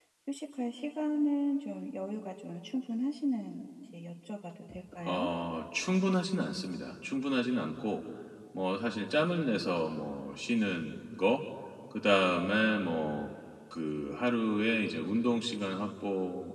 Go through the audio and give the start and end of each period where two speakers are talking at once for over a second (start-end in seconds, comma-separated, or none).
none